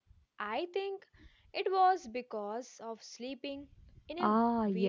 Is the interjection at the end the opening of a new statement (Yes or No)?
Yes